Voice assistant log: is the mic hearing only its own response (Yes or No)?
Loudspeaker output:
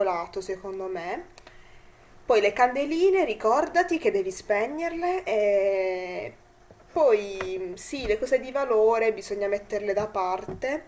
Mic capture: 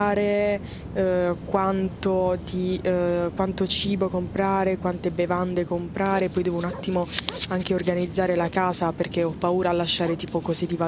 No